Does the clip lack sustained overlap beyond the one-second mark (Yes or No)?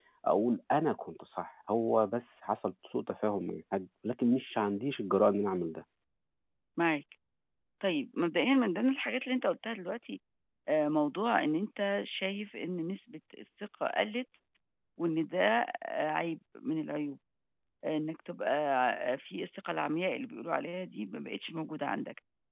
Yes